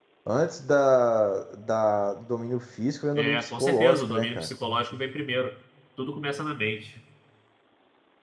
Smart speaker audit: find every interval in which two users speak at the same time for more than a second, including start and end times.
3.2-4.5

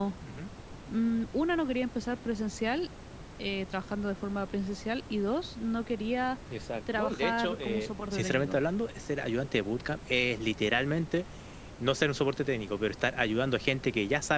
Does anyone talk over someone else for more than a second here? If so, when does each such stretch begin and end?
6.9-8.6

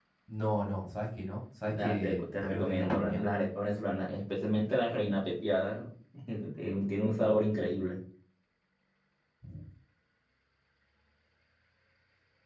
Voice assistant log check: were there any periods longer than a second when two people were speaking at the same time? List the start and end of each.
1.8-3.2

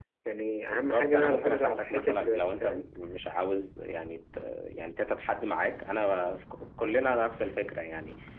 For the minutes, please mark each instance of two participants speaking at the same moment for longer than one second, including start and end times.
0.7-2.9

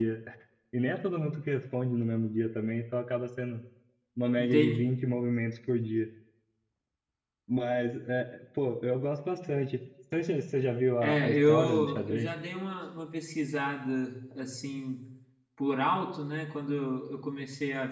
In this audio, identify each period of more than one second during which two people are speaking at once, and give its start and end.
11.0-12.3

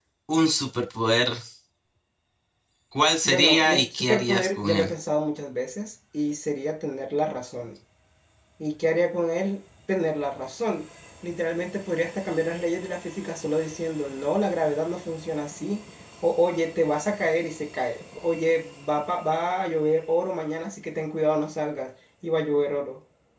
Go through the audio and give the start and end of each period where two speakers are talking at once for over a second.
3.2-4.9

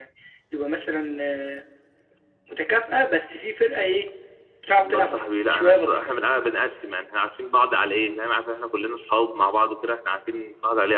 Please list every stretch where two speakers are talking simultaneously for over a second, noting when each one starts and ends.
4.8-6.0

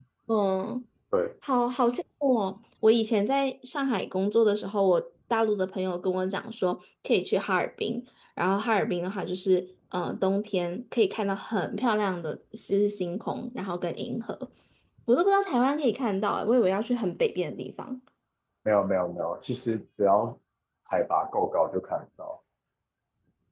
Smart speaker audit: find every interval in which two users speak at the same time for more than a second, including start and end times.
none

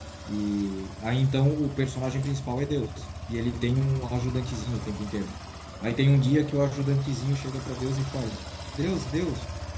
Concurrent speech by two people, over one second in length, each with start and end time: none

